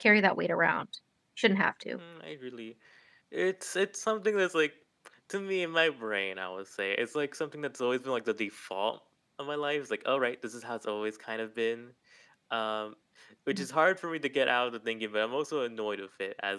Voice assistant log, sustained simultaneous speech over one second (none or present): none